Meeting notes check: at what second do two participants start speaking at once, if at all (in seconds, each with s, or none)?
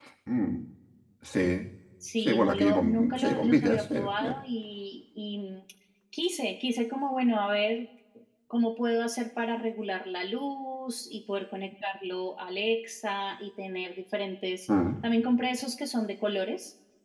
2.2 s